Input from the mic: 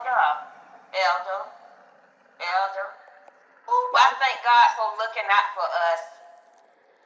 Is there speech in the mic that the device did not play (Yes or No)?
Yes